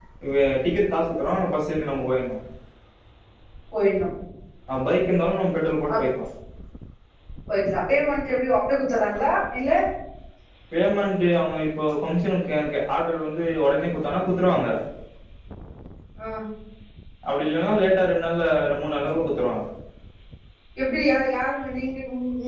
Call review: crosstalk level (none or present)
none